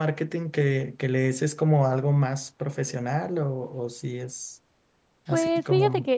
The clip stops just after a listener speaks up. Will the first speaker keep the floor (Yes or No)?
No